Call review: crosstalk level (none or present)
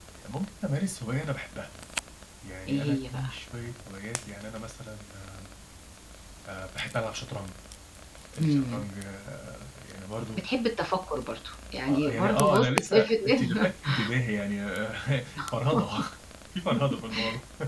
present